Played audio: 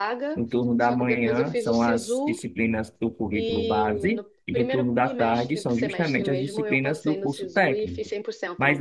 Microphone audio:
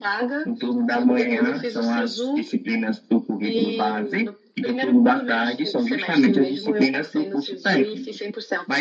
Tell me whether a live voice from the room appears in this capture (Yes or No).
No